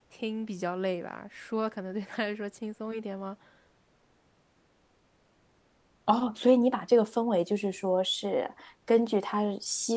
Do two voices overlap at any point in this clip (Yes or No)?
No